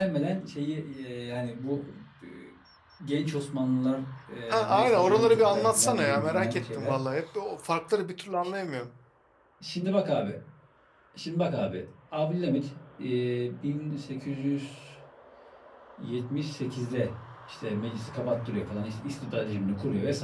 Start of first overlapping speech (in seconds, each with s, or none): 4.5 s